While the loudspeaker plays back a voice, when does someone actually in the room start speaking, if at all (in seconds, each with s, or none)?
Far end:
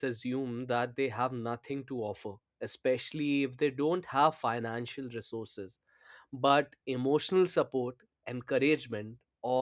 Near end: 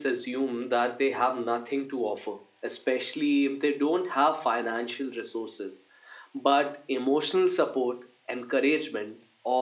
none